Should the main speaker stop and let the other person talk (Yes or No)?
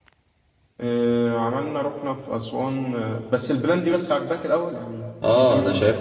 Yes